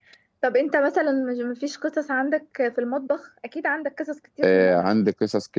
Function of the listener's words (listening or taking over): taking over